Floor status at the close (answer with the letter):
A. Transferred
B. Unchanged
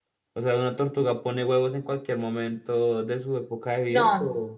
A